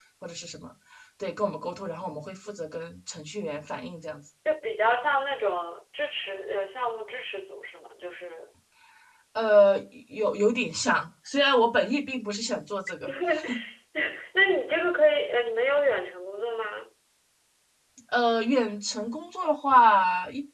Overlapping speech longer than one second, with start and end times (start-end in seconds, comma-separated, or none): none